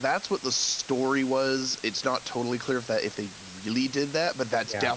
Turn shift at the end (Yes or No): No